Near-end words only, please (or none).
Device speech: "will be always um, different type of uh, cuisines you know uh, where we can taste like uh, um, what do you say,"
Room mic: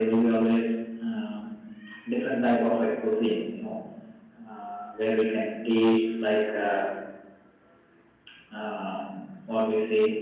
none